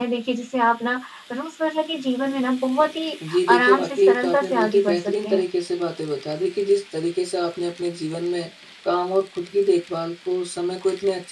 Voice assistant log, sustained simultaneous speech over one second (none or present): present